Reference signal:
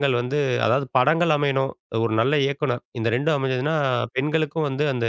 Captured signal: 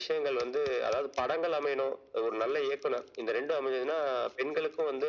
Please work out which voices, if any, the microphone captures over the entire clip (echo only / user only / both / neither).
echo only